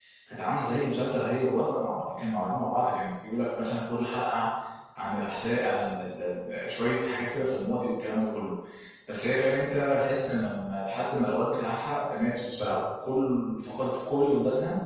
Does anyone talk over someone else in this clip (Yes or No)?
No